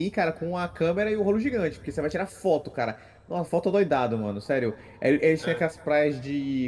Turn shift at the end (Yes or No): No